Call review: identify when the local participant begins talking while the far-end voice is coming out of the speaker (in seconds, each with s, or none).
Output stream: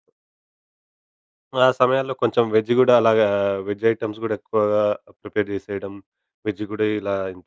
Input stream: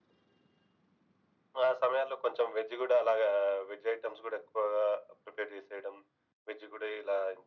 none